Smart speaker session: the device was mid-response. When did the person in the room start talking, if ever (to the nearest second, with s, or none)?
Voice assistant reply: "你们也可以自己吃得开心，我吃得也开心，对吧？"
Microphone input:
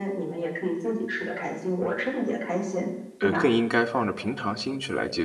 3 s